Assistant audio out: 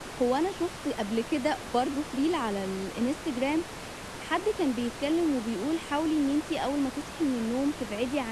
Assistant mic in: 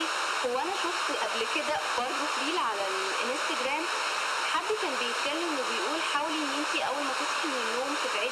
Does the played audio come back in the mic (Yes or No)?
Yes